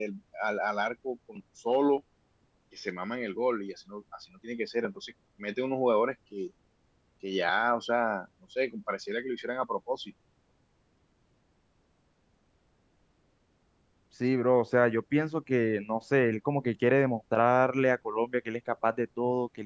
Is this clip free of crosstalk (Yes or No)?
Yes